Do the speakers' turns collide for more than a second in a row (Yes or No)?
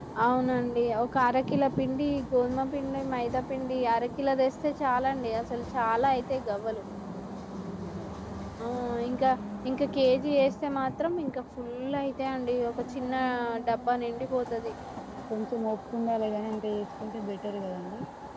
No